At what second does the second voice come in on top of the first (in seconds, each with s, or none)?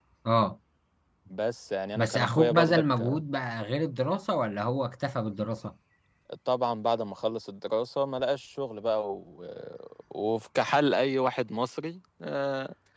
1.9 s